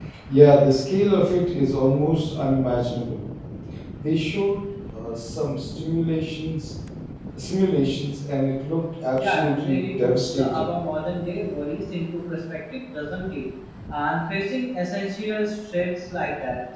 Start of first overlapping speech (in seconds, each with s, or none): 9.2 s